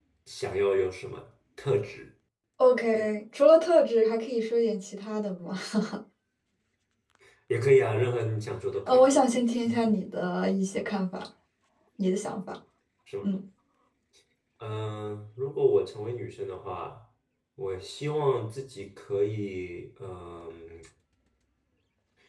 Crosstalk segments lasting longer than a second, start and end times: none

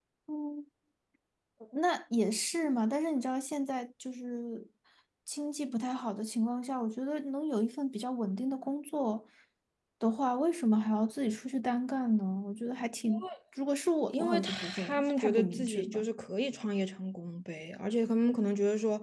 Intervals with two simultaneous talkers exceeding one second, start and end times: 14.1-16.1

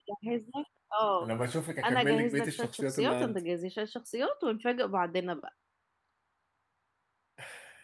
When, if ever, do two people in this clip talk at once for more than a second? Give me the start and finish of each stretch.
1.9-3.4

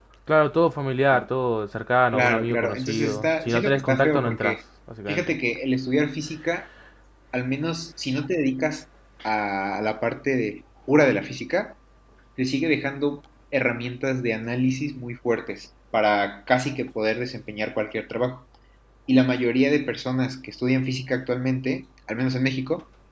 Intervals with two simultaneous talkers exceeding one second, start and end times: 2.1-4.6

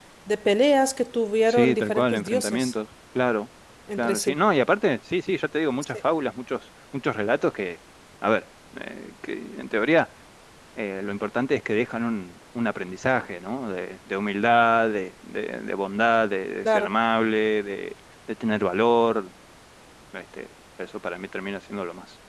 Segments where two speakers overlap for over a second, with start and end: 1.5-2.7

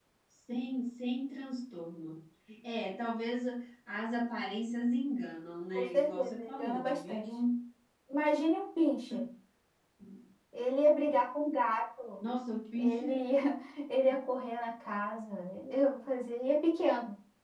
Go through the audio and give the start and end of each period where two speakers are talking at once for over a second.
5.7-7.2

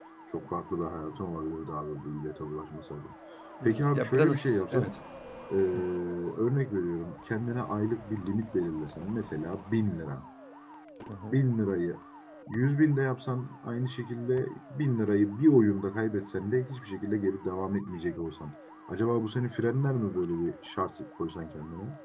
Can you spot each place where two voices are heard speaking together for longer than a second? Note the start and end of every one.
3.6-4.9

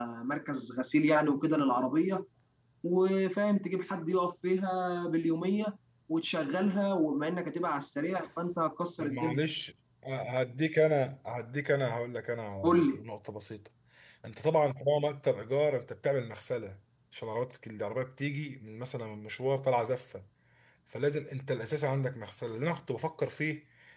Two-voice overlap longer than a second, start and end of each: none

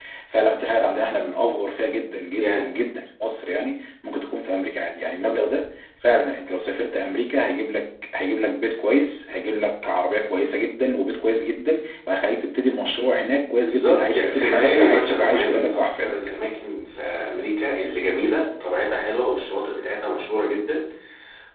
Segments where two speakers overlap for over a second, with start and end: 13.6-16.2

